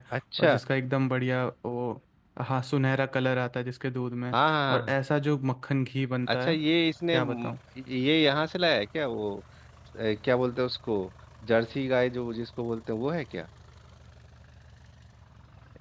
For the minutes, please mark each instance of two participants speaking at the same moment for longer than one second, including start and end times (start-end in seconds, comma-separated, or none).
none